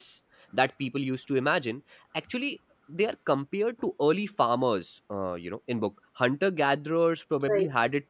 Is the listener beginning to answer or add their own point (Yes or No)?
No